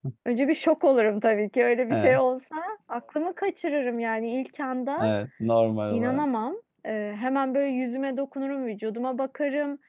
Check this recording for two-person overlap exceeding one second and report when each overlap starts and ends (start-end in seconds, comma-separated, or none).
none